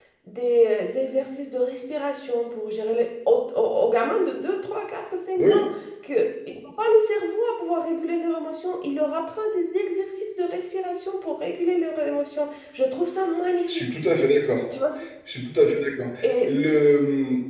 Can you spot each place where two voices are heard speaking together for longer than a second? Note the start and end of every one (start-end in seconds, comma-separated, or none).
none